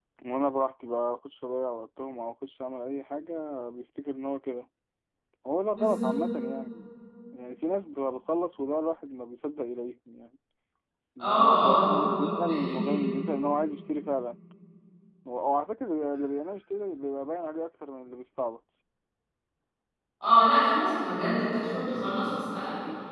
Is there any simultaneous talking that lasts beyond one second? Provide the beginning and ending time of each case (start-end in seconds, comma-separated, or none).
11.2-13.0